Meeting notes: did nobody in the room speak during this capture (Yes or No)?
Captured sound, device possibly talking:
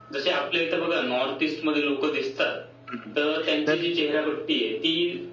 No